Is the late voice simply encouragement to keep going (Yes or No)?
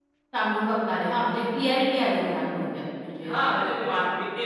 No